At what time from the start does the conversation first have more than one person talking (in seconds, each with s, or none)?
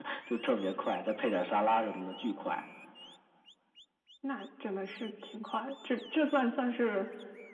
none